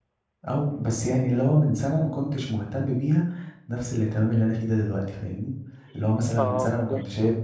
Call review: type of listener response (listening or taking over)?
listening